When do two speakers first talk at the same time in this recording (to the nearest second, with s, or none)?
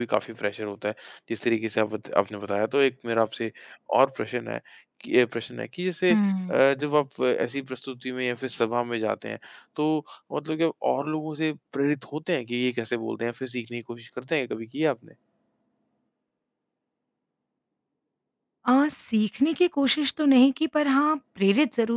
none